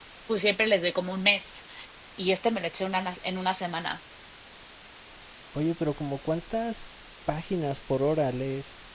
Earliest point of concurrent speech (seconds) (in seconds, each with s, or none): none